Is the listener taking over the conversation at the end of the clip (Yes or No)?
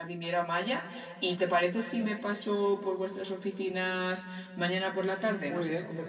Yes